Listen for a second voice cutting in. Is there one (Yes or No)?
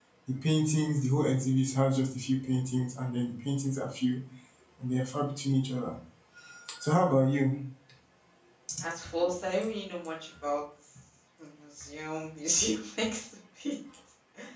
No